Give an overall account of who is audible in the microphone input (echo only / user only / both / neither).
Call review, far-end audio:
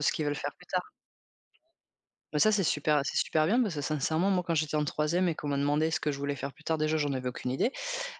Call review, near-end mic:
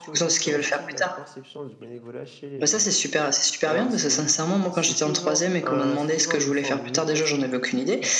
both